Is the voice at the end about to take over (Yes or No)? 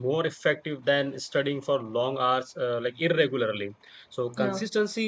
No